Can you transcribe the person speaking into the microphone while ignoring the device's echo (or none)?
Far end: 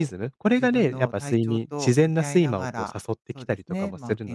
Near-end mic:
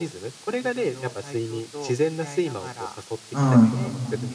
うん、